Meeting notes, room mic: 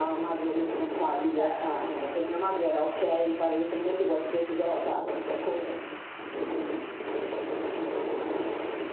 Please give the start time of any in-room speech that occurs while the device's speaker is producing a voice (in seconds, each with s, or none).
1.4 s